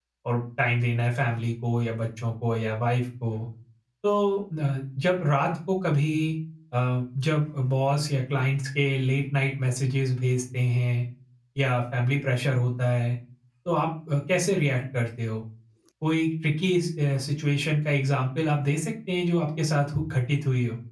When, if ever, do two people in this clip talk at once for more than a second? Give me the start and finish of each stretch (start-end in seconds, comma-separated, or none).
none